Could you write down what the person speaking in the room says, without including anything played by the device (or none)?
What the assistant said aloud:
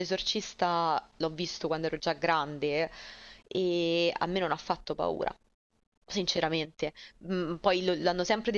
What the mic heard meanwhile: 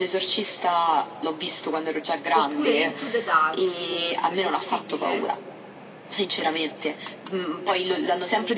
Oppure Into the Dark, forse, possibile?